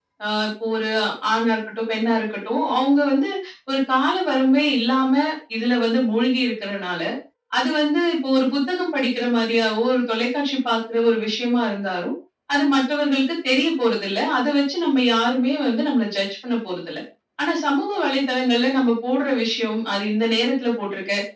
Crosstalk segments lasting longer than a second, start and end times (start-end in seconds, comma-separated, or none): none